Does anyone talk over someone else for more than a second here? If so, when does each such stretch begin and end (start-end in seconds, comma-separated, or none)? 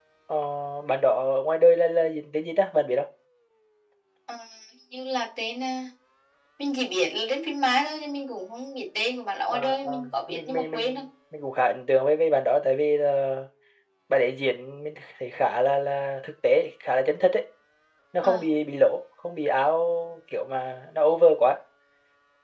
9.5-11.0